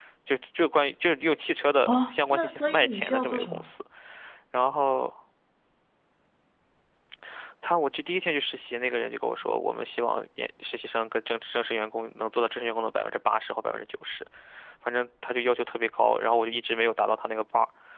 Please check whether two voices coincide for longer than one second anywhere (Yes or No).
Yes